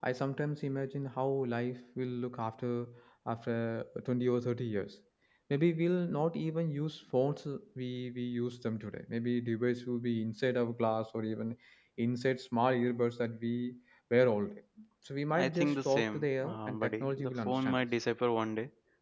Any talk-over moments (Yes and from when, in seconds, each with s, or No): Yes, from 15.3 s